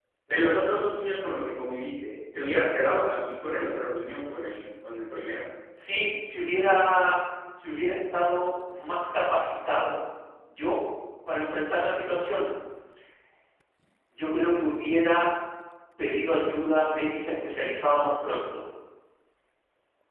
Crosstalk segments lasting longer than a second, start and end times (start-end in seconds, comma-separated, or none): none